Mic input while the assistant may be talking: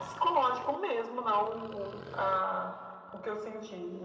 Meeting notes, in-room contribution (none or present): none